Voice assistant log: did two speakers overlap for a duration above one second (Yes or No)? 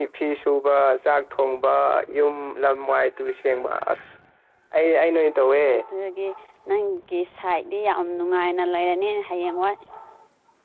No